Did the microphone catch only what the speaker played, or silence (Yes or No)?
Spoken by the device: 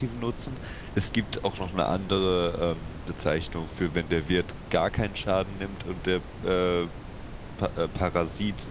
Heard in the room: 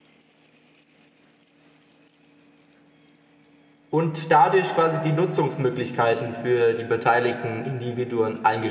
No